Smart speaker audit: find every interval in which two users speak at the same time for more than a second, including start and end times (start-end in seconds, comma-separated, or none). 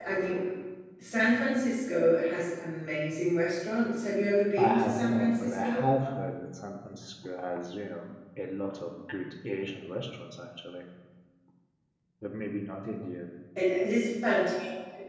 4.6-5.9